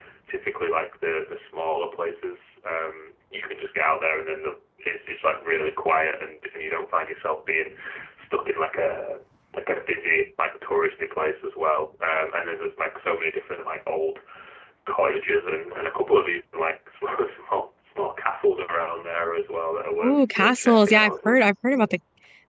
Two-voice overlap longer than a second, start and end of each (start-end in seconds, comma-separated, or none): 20.0-21.5